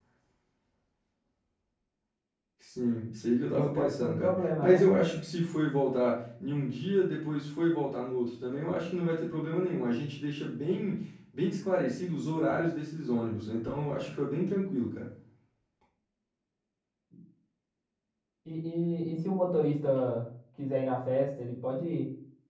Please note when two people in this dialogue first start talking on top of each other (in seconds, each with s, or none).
3.5 s